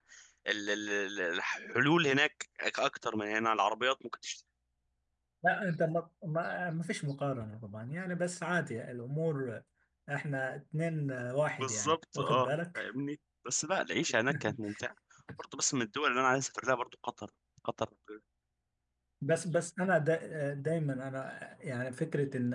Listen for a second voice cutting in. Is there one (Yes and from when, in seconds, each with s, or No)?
Yes, from 11.6 s